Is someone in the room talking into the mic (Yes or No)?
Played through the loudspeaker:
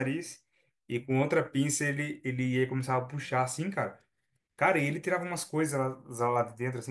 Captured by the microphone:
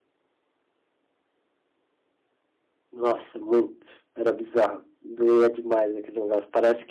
Yes